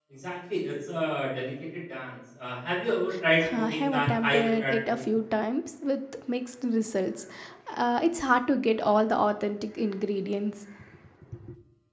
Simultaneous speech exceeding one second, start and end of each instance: 3.6-5.0

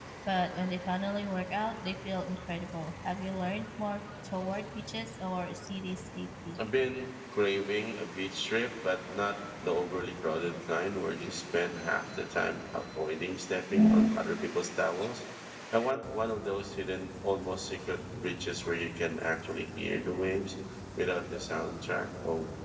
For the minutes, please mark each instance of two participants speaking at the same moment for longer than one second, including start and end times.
none

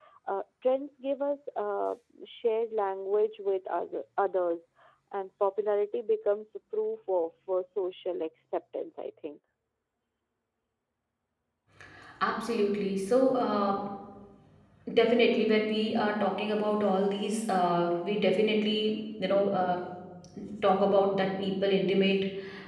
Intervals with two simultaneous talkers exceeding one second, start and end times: none

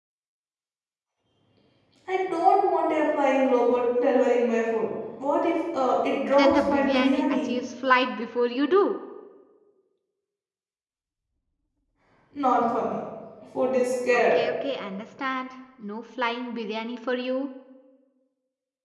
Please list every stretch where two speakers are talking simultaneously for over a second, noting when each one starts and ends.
6.3-7.5

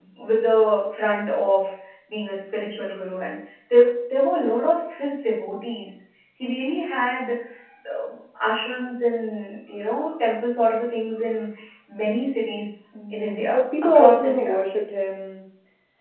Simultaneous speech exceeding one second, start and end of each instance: 13.1-14.6

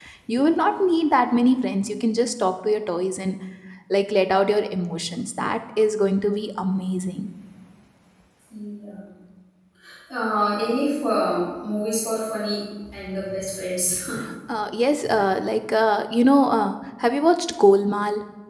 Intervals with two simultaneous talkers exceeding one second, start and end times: none

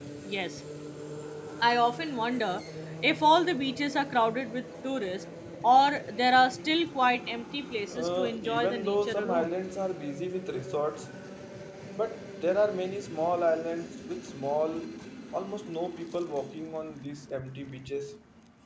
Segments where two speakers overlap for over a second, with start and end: 7.9-9.6

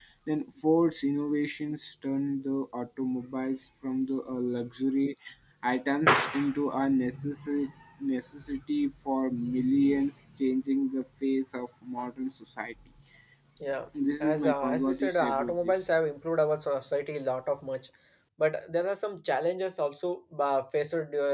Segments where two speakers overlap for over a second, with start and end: 14.2-15.7

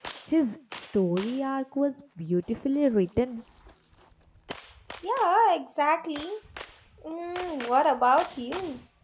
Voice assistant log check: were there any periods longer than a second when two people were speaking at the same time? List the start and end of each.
none

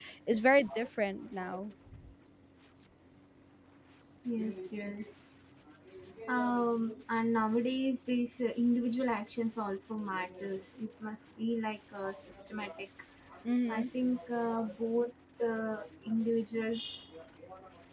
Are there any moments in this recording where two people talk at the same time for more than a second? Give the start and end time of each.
none

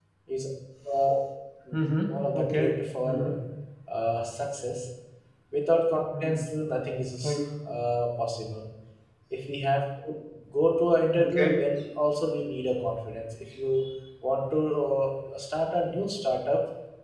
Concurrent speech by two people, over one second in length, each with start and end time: 2.1-3.3

